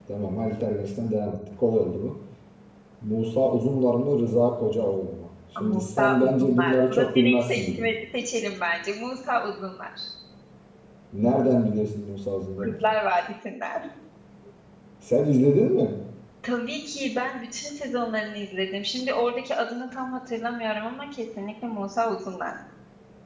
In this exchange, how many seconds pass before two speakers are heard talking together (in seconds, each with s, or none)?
5.5 s